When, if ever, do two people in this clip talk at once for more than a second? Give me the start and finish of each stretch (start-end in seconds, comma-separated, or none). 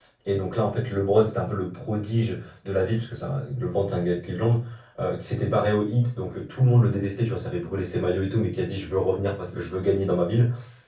none